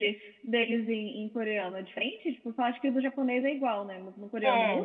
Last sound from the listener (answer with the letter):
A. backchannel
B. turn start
B